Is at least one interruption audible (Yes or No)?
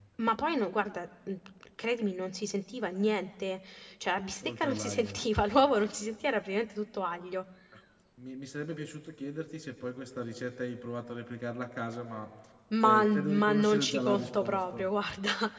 Yes